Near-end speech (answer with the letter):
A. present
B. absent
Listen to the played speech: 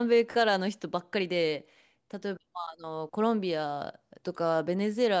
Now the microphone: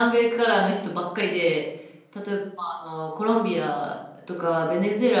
B